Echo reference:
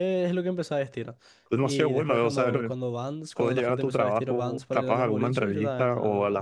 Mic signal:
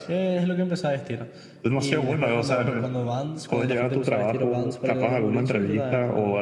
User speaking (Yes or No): No